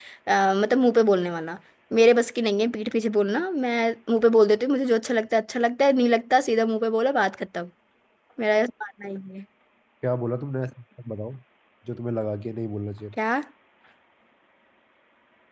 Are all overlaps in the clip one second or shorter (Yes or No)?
Yes